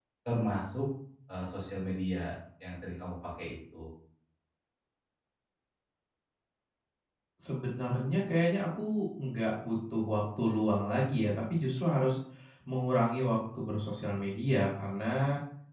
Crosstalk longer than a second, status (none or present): none